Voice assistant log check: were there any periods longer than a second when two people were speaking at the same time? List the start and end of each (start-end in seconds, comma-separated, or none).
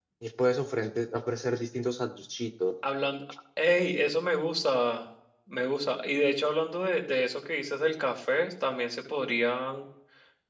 none